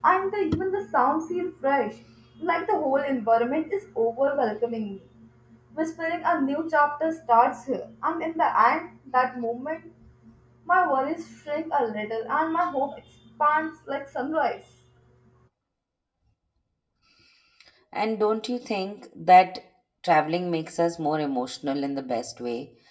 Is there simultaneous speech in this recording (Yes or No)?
No